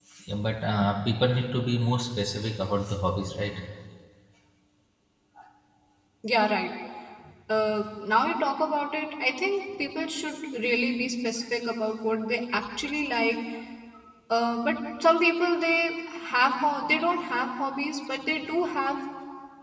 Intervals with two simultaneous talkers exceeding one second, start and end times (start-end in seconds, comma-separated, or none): none